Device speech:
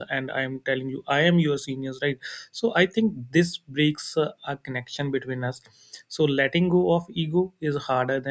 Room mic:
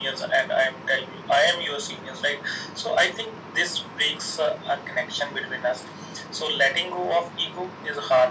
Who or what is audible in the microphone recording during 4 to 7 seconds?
echo only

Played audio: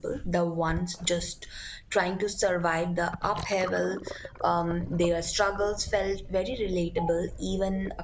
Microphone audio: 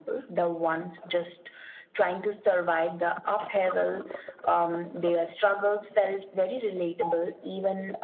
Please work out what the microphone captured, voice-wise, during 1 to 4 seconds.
echo only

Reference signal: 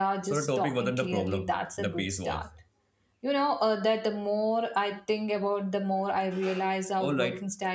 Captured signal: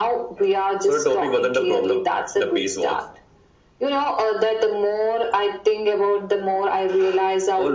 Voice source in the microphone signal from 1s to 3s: echo only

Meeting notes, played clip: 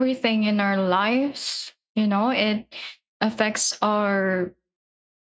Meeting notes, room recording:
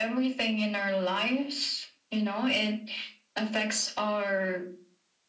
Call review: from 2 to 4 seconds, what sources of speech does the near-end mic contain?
echo only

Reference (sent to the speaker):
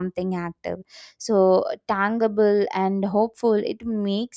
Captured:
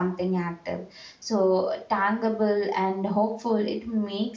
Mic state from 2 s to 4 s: echo only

